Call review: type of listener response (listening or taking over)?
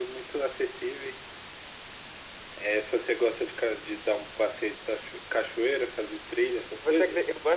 taking over